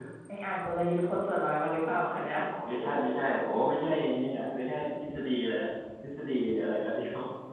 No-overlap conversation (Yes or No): Yes